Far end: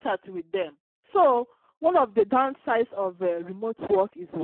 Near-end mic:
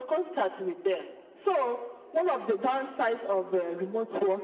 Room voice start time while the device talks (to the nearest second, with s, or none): none